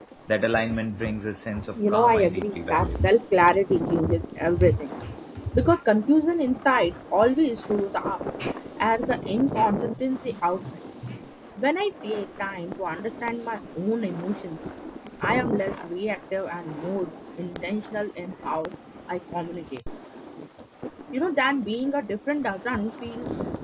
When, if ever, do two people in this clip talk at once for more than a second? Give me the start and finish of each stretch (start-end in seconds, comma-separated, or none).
1.8-3.0